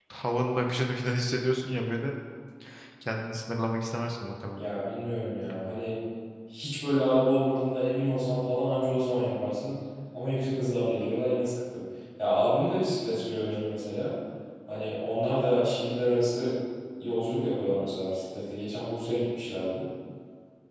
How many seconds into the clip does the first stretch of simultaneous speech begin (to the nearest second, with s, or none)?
none